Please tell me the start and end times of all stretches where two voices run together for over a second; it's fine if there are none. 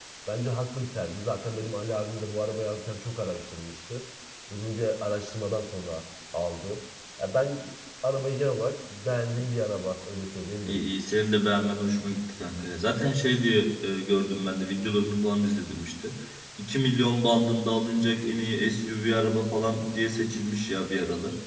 none

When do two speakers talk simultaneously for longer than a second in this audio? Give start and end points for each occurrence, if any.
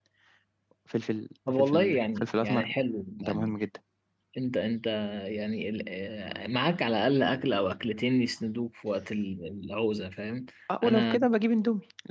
1.5-2.7

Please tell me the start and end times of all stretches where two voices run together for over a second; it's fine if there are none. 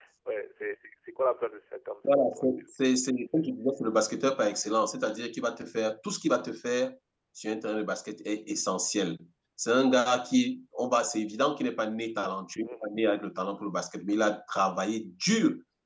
2.0-3.5

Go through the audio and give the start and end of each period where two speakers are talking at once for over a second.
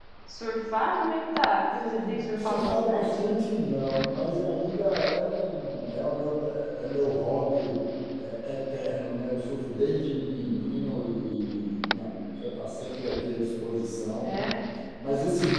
1.9-3.3

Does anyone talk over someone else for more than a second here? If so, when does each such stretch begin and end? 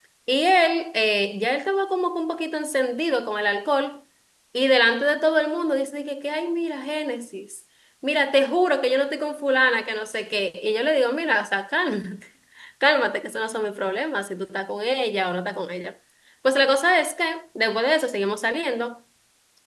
none

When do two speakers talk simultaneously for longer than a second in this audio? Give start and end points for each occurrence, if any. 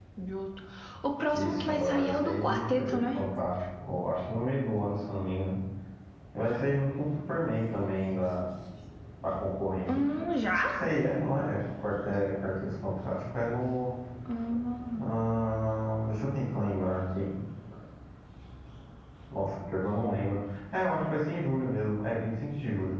1.3-3.1

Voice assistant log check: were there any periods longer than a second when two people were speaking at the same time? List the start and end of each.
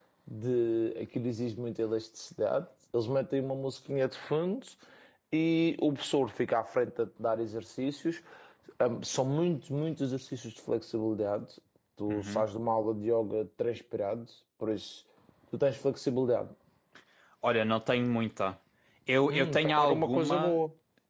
19.3-20.6

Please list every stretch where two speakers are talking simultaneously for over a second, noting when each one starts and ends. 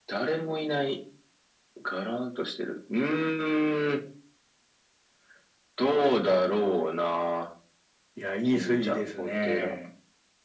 8.4-9.7

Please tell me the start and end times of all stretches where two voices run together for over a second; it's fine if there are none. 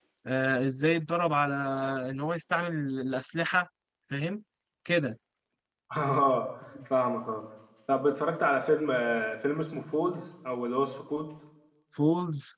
none

